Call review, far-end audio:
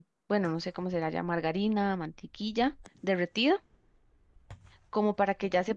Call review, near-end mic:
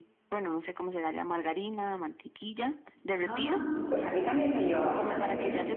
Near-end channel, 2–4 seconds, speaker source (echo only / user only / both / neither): both